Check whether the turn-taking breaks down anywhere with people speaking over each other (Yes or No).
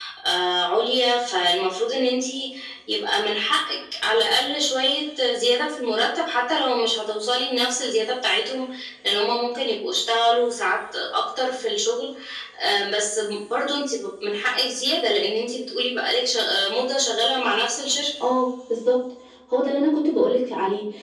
No